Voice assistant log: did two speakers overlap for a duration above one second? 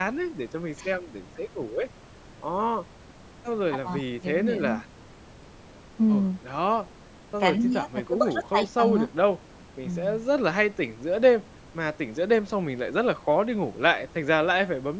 Yes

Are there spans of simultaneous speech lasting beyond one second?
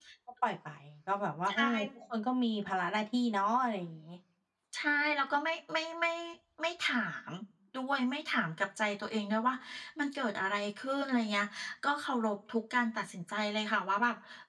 No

